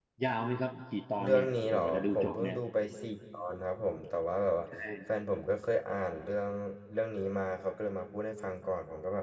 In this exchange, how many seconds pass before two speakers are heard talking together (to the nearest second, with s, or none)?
1 s